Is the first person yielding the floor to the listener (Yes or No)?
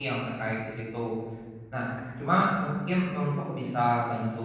No